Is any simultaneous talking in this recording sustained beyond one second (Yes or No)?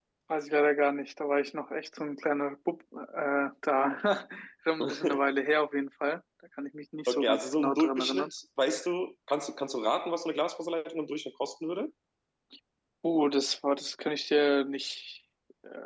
Yes